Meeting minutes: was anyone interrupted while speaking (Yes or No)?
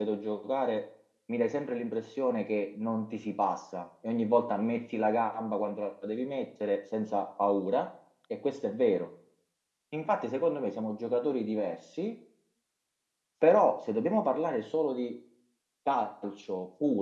No